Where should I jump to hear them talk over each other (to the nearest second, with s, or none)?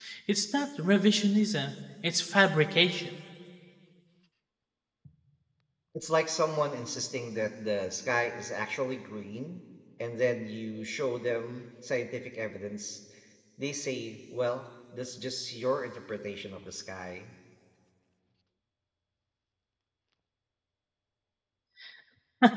none